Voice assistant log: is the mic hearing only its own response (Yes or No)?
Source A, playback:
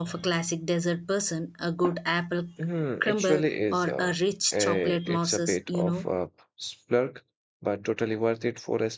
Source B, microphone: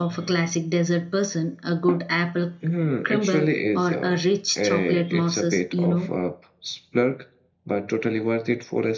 Yes